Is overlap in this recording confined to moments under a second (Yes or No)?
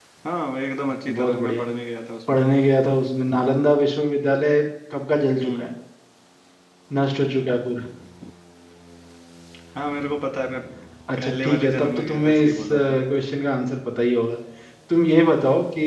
No